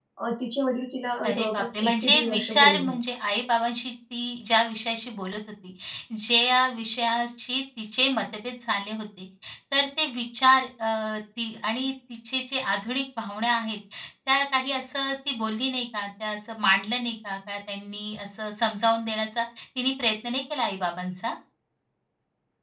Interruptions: present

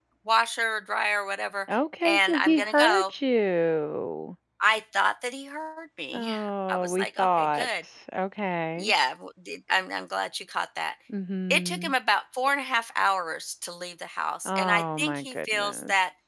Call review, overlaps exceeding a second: present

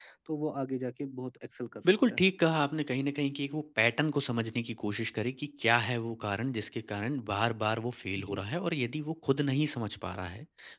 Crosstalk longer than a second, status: none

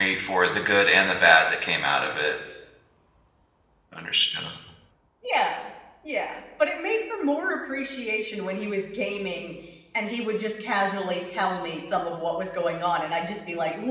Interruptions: none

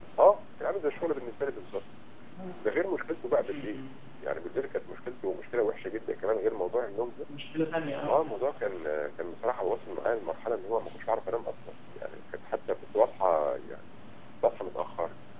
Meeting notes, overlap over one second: none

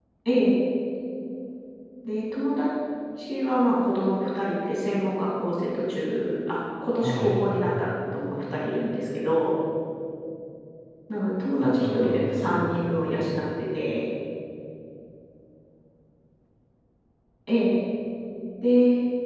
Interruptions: present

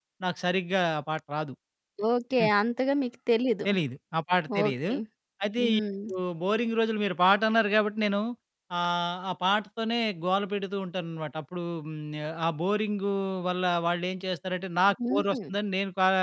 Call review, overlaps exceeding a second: none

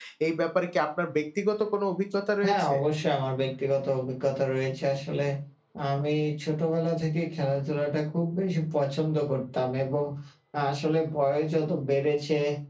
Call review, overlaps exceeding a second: none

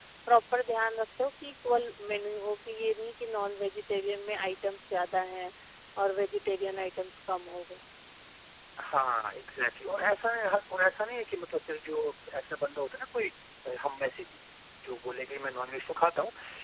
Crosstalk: none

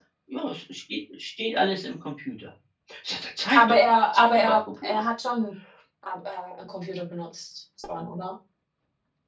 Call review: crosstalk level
present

